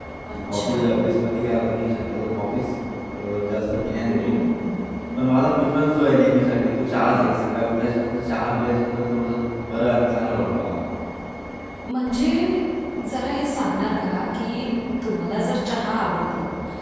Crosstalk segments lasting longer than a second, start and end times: none

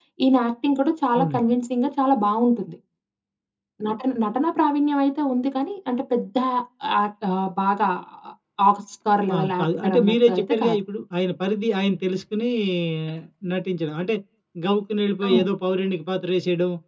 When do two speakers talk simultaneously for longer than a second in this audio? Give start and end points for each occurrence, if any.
9.3-10.8

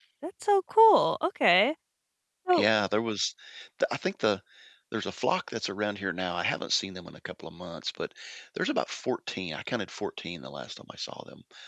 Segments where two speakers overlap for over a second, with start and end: none

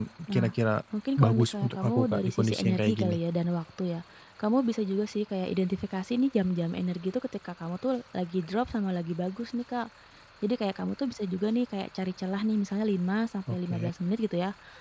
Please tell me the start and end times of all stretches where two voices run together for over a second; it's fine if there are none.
1.2-3.2

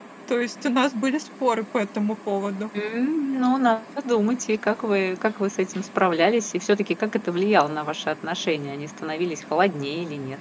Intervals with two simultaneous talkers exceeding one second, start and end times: none

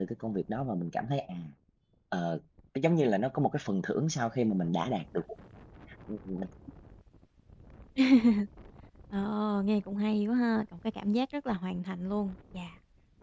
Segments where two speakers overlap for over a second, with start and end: none

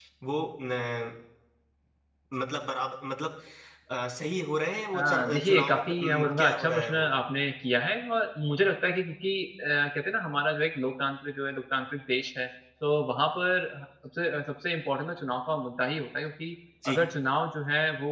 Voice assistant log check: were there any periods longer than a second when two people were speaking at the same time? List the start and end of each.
4.9-7.1

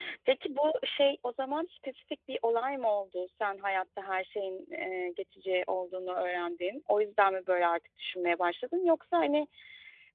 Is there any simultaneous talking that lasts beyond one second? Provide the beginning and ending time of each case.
none

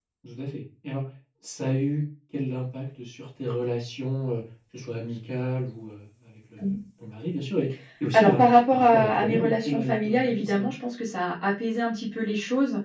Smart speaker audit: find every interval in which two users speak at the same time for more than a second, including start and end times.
8.1-10.7

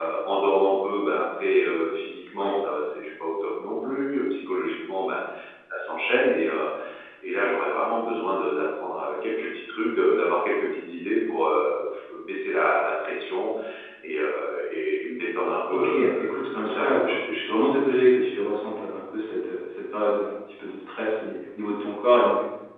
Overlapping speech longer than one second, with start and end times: 15.7-17.0

